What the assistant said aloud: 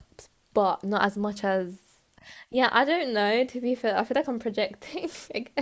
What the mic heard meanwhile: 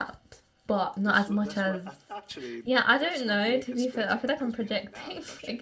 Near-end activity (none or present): present